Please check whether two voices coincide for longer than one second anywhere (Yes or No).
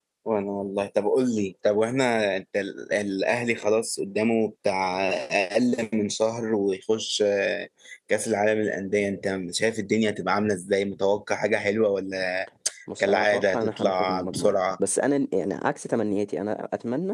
Yes